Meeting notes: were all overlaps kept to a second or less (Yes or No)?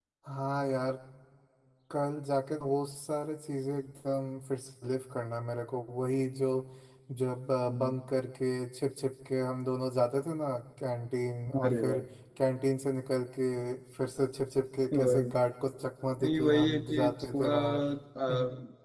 No